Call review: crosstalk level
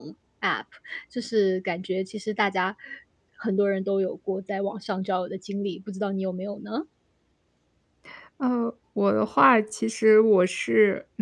none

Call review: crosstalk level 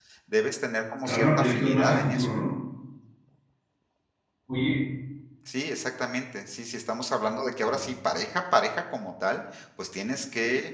present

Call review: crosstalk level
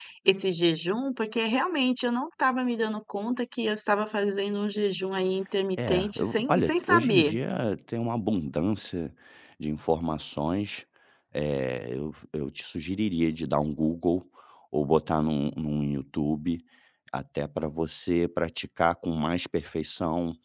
present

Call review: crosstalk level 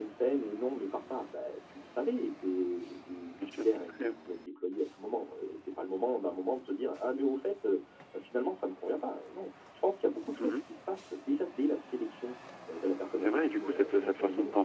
present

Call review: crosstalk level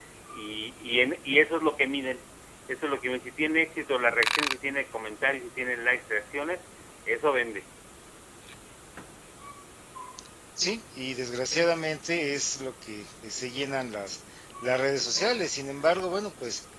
none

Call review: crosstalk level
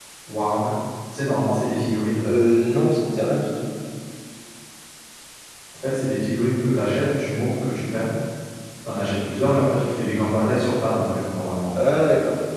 none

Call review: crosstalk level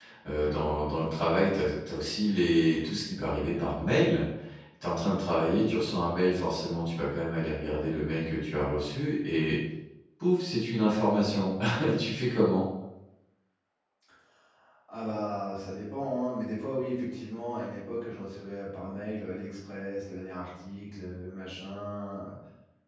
none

